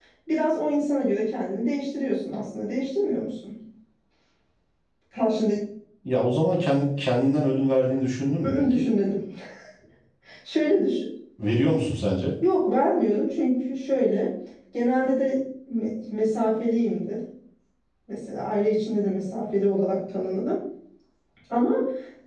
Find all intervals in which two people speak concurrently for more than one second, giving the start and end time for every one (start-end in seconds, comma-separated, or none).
none